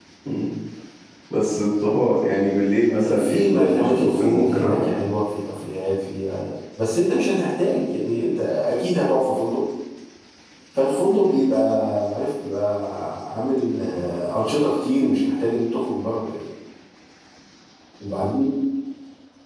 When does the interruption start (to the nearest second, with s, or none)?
3 s